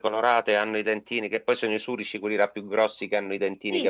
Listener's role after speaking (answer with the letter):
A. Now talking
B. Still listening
A